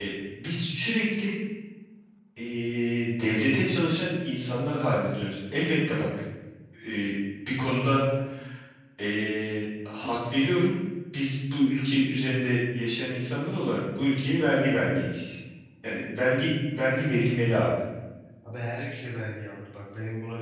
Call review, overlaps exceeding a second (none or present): none